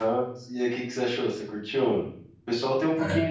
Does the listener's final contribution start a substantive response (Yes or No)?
No